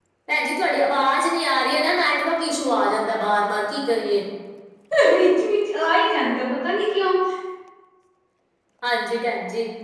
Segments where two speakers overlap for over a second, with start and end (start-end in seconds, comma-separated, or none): none